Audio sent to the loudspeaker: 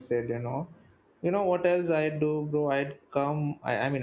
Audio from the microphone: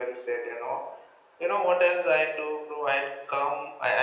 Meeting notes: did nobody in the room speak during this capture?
Yes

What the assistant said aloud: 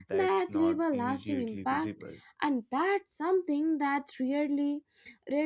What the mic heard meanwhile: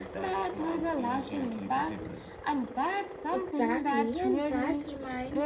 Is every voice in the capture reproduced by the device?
No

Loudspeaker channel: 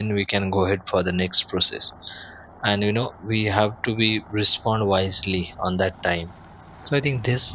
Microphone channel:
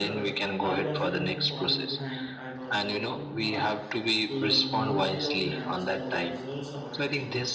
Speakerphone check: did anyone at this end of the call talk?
Yes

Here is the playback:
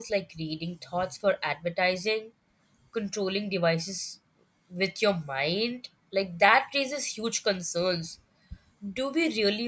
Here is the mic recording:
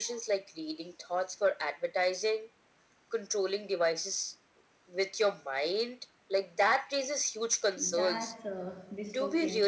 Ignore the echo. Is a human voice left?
Yes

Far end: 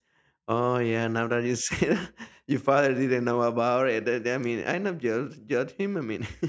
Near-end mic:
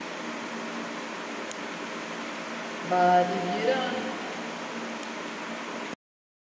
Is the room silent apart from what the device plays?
No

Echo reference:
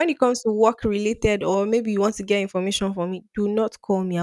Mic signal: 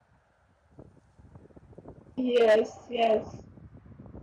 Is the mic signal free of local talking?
No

